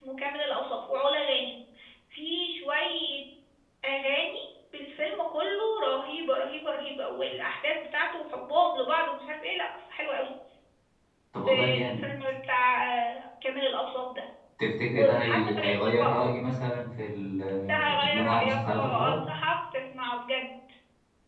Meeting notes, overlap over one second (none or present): present